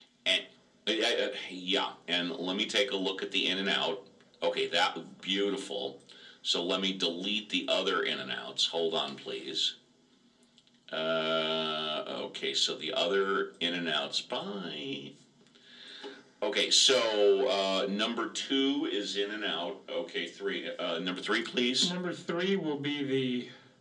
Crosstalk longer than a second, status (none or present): none